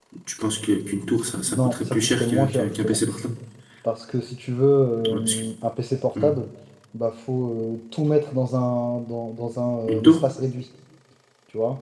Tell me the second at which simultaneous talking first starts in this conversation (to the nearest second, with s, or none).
1 s